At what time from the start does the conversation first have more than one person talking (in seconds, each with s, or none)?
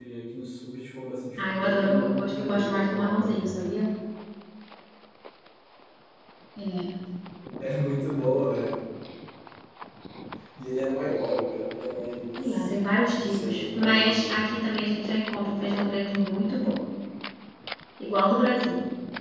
1.4 s